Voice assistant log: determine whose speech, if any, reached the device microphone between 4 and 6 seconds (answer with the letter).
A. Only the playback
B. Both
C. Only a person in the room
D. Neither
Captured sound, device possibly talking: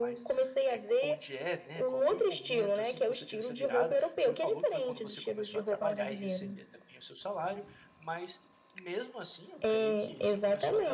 B